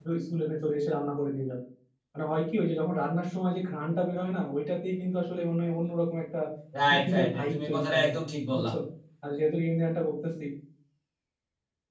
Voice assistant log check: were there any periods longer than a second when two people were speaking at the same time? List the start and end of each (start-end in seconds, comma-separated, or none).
6.9-8.1